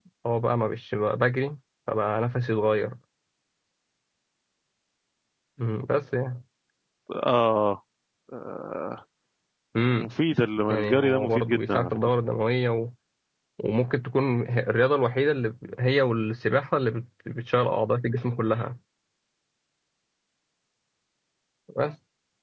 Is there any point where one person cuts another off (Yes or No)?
Yes